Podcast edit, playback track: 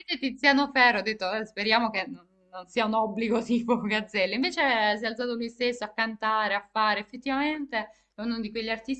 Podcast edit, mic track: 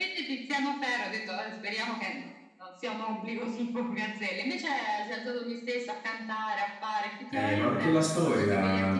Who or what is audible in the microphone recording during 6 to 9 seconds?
both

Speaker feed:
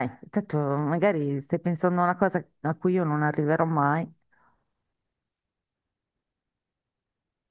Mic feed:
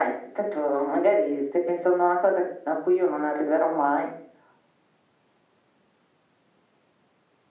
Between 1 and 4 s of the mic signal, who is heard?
echo only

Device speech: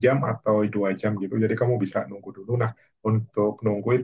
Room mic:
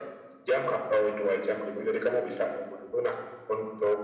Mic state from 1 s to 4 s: echo only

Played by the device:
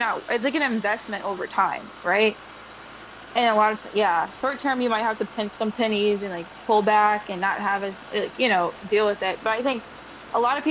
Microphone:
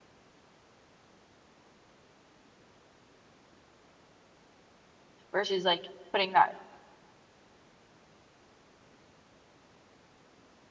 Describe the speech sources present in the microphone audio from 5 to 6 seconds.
user only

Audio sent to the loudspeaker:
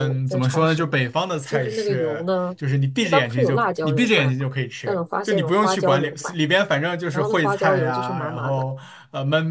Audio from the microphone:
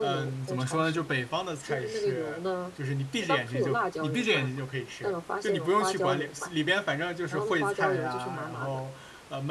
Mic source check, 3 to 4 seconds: echo only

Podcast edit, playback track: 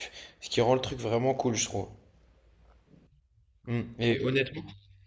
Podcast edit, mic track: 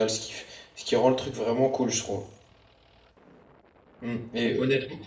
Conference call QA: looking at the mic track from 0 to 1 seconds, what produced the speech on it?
echo only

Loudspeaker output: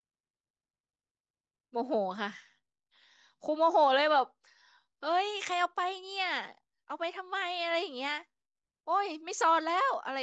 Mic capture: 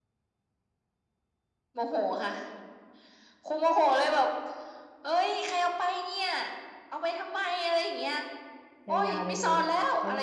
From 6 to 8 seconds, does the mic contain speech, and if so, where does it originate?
echo only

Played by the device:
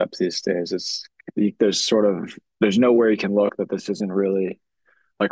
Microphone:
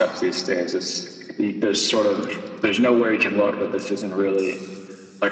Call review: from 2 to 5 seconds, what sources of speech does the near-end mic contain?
echo only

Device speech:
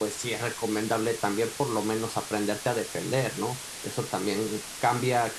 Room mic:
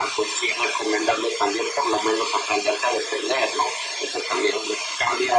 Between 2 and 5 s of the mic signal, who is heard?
echo only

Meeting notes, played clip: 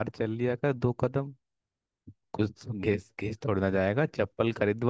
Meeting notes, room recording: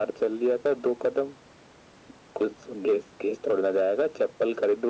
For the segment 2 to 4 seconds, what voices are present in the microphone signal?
echo only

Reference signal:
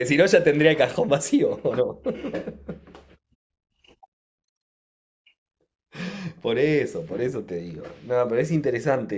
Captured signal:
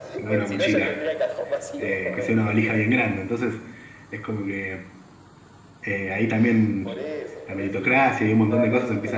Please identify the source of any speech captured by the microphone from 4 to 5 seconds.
user only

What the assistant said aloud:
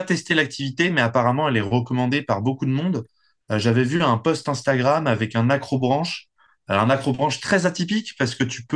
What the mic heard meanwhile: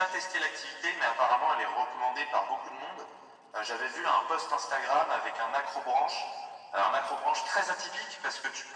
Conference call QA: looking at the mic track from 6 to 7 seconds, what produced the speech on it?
echo only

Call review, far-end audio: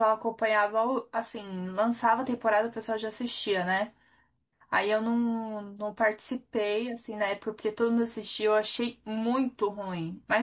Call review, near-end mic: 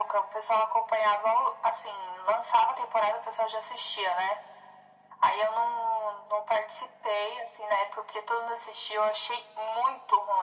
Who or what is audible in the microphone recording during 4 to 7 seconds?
echo only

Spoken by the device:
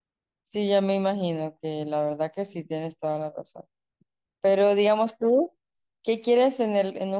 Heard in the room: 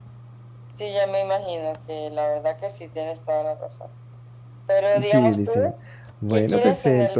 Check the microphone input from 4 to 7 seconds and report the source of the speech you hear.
both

